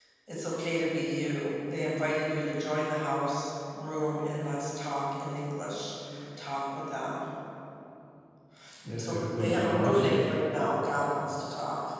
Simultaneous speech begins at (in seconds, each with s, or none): 9.0 s